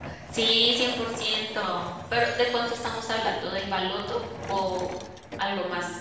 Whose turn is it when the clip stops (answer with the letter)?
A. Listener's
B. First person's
A